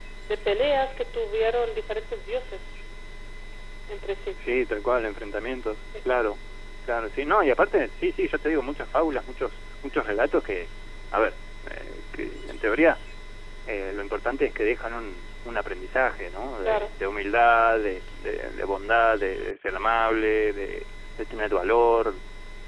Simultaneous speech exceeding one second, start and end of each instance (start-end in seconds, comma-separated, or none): none